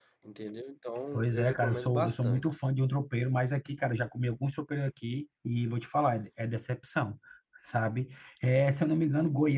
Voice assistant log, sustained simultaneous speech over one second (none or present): present